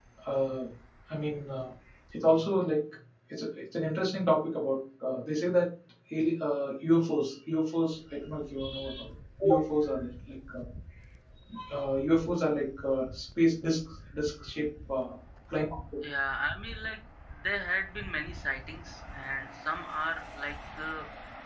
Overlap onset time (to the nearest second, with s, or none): none